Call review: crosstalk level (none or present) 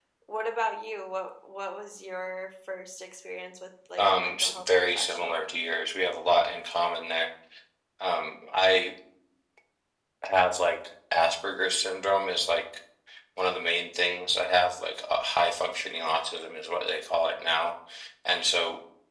present